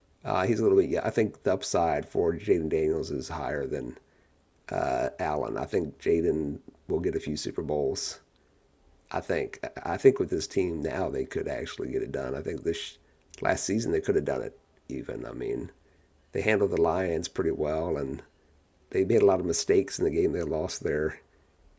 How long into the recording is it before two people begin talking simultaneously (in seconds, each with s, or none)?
none